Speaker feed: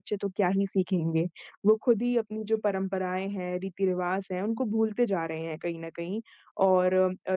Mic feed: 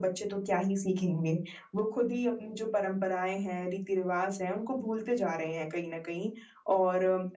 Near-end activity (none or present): none